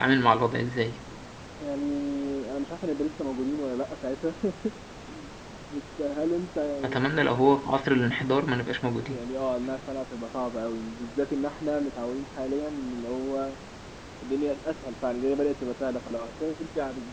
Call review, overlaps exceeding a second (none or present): none